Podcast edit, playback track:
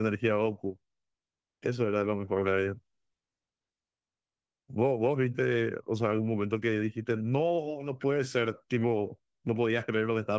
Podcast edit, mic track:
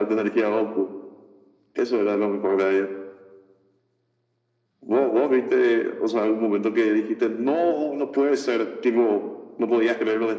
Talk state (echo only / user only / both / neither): echo only